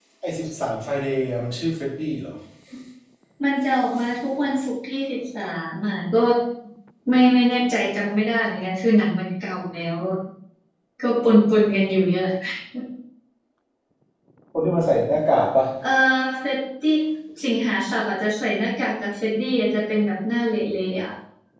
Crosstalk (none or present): none